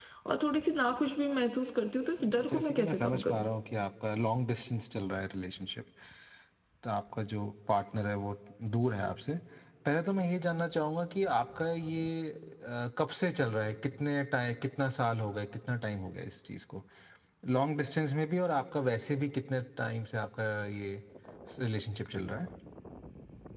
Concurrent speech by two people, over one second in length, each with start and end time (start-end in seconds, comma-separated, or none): 2.2-3.5